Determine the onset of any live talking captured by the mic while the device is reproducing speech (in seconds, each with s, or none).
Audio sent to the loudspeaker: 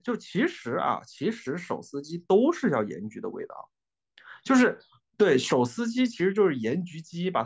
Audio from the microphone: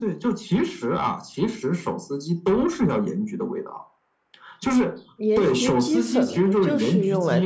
5.2 s